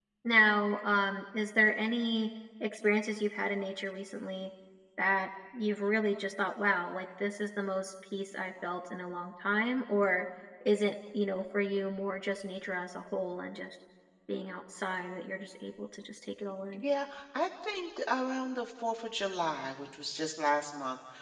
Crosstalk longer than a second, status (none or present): none